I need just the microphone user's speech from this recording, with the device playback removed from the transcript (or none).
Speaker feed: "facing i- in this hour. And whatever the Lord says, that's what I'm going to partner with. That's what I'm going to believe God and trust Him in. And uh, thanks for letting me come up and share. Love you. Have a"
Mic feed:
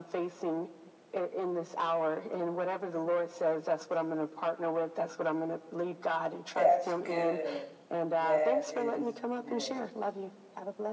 That's good. That is good.